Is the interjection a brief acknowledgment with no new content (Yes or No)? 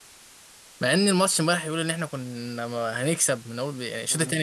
Yes